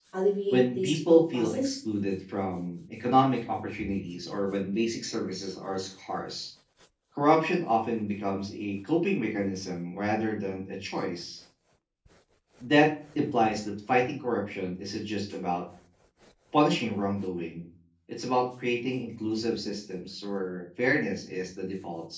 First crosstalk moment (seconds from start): 1 s

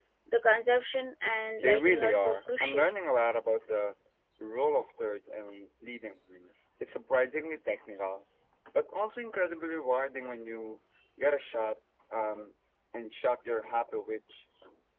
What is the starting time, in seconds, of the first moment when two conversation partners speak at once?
2 s

